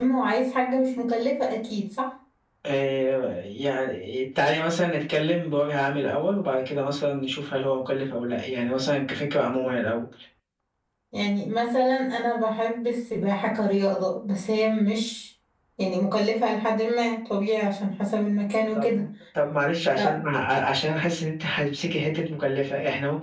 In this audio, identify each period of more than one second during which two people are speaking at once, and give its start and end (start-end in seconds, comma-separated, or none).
none